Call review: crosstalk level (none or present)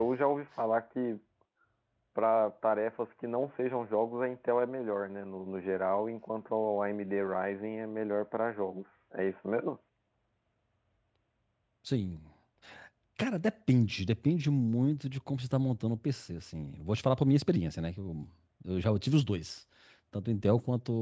none